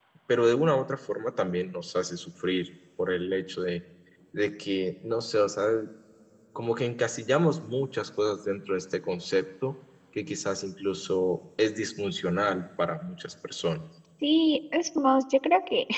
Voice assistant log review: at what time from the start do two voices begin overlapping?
none

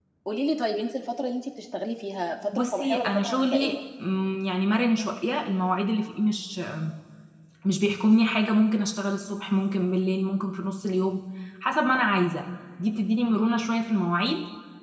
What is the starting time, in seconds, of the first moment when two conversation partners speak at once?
3 s

